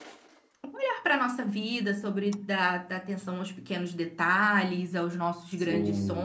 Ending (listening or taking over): taking over